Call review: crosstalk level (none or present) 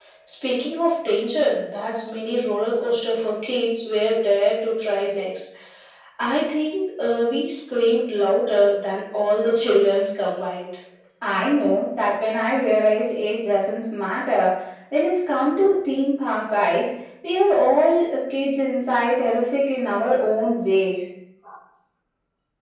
none